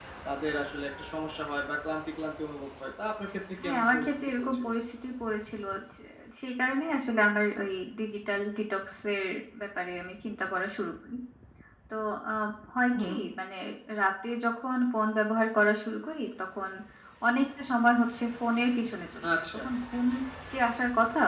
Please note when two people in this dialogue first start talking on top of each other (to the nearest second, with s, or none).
4 s